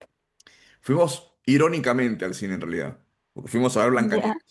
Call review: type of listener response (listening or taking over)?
listening